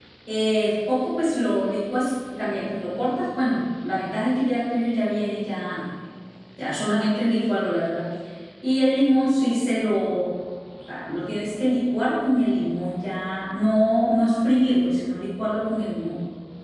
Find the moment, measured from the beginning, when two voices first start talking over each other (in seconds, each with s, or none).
none